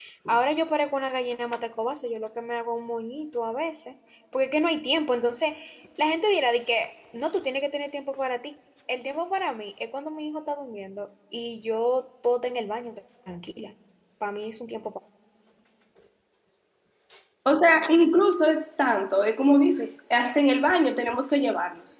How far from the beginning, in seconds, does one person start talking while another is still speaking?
none

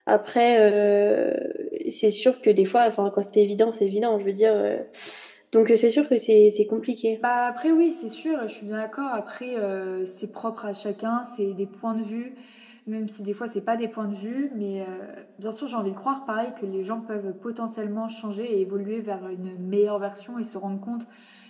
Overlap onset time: none

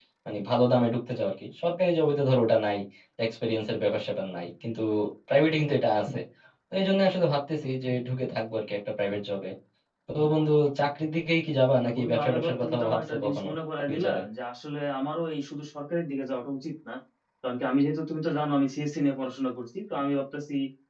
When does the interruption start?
11.8 s

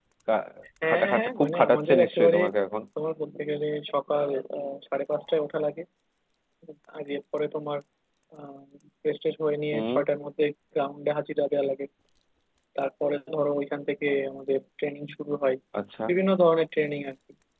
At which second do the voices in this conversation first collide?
0.9 s

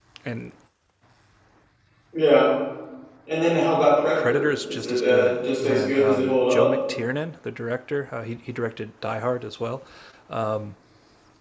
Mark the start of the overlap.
4.2 s

